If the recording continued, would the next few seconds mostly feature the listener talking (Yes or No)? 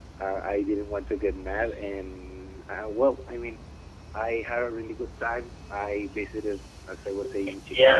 Yes